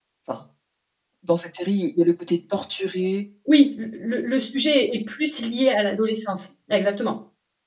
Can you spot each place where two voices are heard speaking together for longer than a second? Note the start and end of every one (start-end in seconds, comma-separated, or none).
none